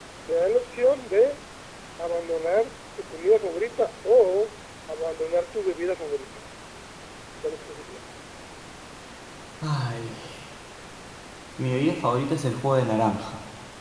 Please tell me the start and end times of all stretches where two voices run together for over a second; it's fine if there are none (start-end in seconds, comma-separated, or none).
none